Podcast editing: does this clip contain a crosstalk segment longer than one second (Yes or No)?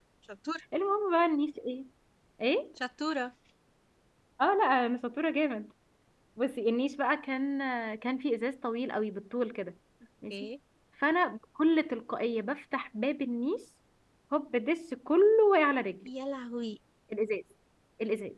No